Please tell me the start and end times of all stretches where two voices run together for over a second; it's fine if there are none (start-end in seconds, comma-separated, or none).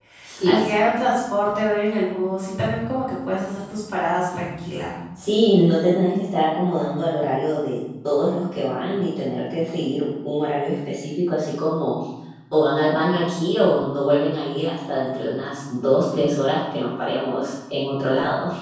none